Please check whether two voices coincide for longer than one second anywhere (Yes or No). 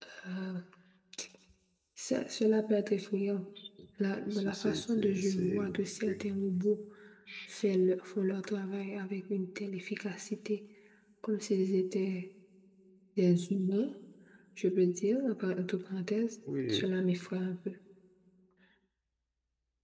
Yes